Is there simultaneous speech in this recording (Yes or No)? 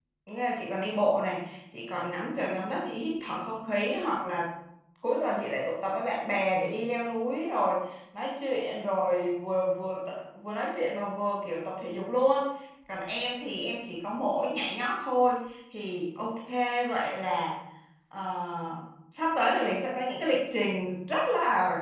No